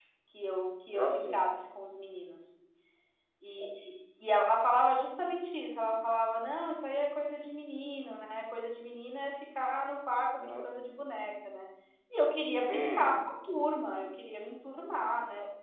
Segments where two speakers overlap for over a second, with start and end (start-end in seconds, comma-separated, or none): none